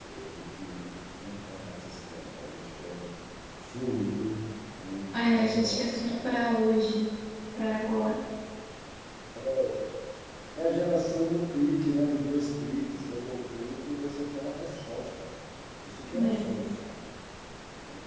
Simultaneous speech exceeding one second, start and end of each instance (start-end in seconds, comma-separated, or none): 5.1-6.4